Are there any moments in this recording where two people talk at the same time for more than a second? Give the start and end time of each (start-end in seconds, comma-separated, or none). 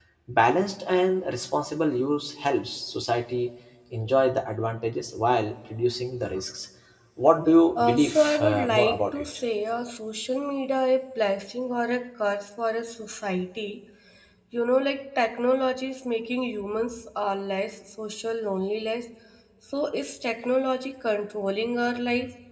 7.8-9.3